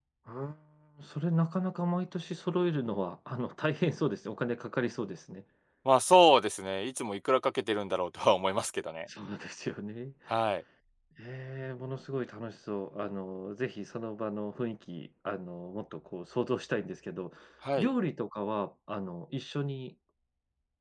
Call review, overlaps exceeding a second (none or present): none